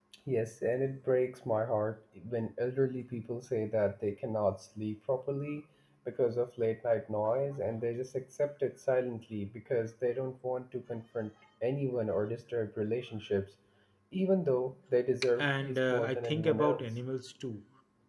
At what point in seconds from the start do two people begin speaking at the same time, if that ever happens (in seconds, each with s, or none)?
15.4 s